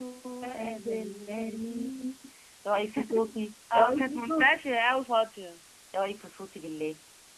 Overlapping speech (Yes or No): Yes